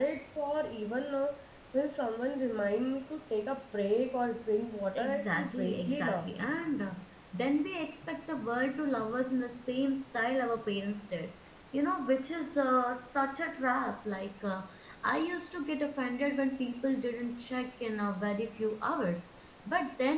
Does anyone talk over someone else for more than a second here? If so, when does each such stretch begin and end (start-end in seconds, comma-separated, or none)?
5.0-6.3